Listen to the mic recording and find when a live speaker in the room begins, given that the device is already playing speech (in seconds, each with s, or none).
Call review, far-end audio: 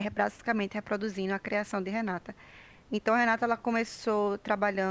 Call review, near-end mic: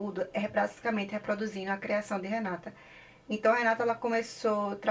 none